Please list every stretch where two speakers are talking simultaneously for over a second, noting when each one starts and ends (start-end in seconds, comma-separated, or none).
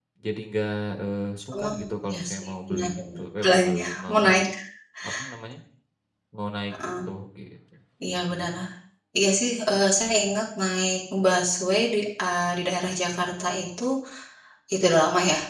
2.1-4.2